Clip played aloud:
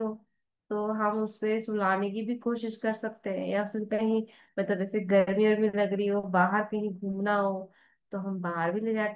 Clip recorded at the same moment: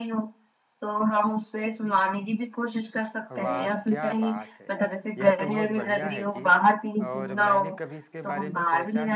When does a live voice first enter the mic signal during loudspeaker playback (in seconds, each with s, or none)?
3.3 s